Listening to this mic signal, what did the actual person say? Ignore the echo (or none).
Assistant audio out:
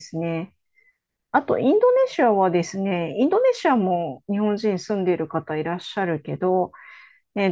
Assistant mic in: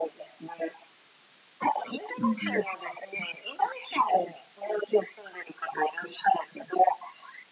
うん。